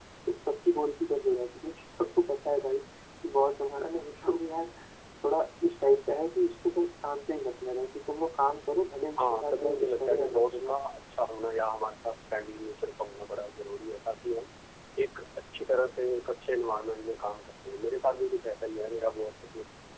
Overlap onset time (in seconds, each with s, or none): 9.2 s